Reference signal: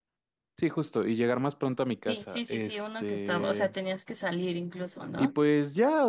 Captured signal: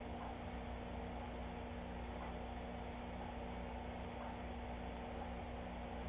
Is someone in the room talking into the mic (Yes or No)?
No